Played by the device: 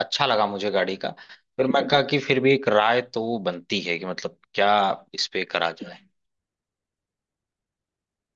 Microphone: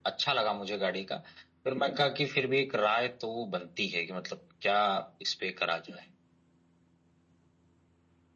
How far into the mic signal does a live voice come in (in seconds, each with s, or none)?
none